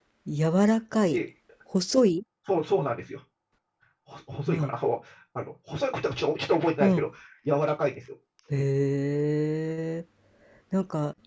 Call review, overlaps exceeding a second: none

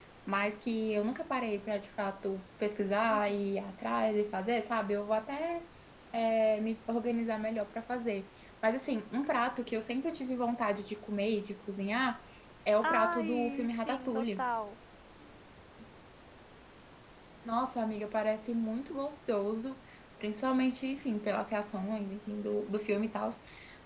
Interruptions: present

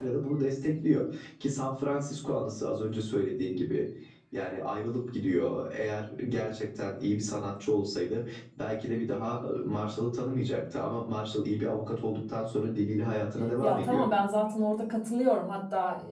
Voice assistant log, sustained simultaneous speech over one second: none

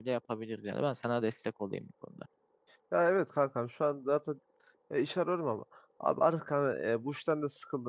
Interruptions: none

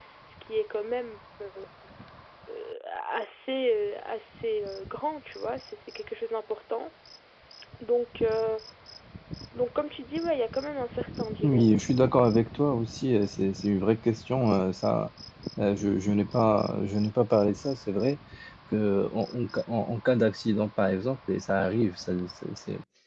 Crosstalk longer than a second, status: none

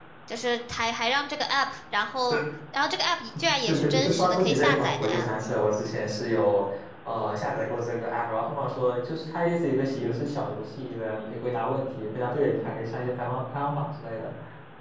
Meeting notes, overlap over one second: present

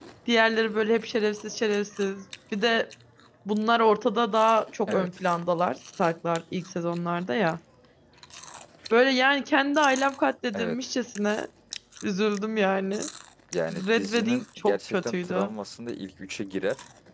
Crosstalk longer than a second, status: present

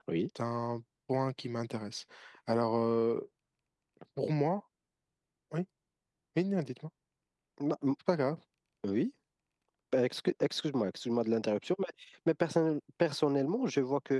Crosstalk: none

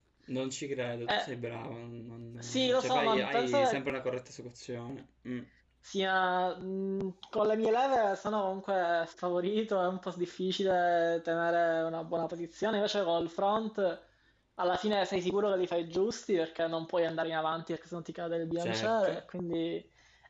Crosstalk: present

